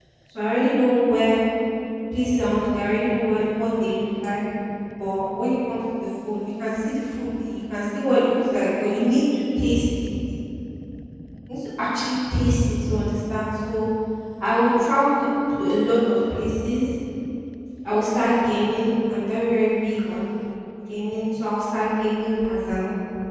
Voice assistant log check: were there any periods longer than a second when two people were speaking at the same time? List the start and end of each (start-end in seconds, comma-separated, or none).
none